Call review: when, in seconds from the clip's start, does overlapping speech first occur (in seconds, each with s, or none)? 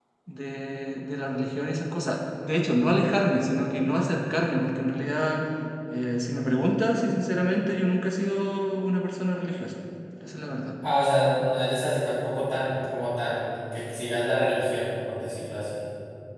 none